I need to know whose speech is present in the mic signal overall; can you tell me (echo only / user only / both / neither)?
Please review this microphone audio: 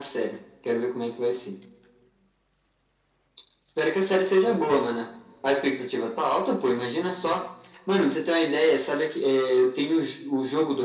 echo only